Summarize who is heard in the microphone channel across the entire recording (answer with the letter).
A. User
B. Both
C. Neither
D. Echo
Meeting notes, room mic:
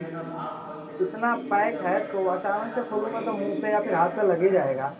B